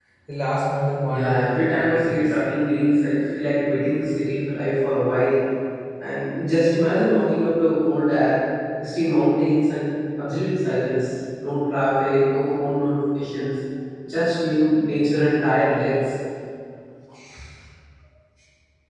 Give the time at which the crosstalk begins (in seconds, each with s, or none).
1.0 s